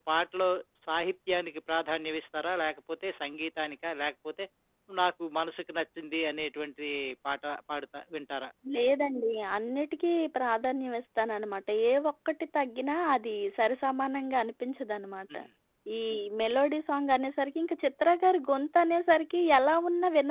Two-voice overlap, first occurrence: none

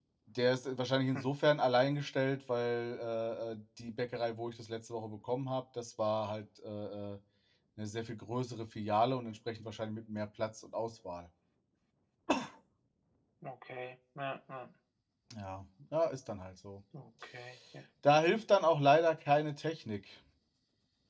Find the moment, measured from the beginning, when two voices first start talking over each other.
none

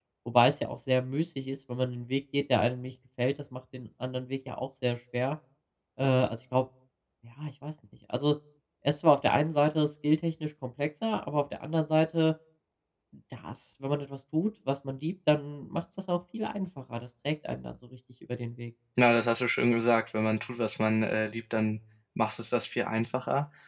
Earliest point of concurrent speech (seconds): none

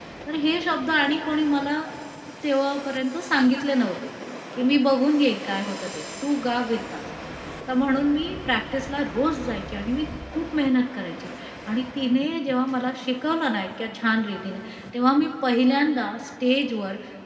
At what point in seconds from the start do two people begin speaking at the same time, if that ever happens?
none

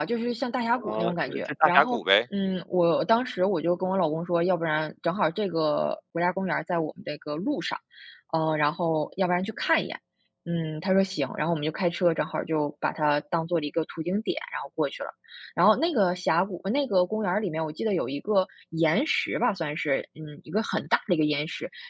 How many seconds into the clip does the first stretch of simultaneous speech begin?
0.8 s

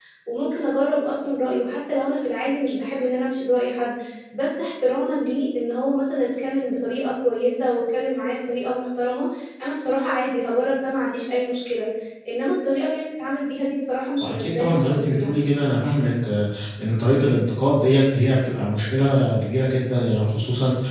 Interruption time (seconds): 14.2 s

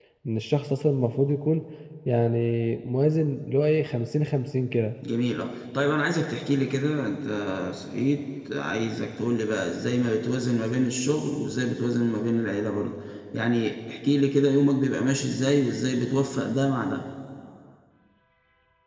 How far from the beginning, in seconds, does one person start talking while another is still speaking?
none

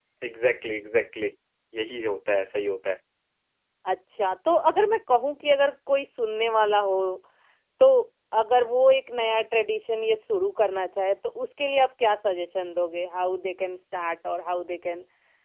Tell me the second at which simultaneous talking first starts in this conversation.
none

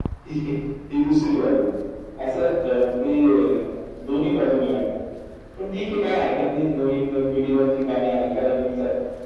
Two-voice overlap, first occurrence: none

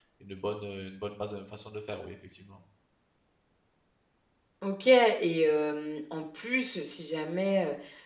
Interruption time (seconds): none

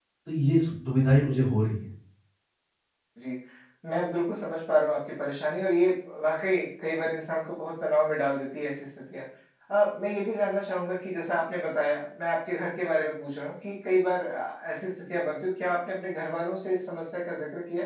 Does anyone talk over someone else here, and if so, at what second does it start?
none

